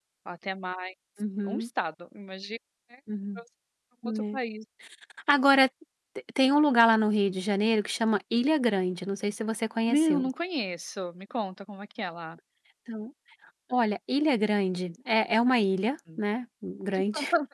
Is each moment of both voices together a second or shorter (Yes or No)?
Yes